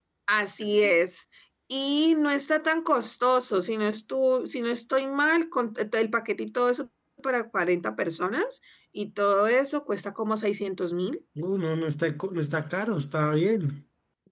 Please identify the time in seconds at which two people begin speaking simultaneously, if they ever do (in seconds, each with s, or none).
none